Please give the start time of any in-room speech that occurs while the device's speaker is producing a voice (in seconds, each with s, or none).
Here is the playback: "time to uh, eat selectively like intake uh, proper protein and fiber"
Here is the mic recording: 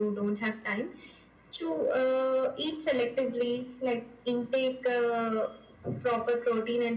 none